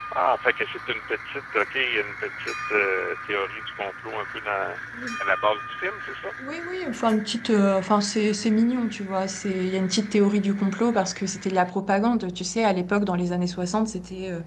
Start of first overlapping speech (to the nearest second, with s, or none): none